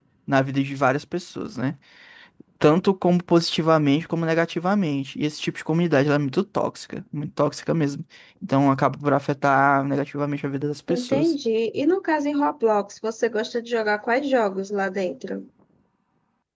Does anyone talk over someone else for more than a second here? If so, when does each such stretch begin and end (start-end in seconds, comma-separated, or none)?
none